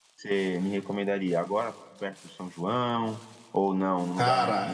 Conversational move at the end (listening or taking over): listening